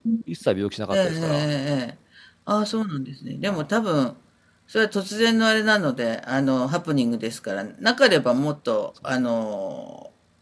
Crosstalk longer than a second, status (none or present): none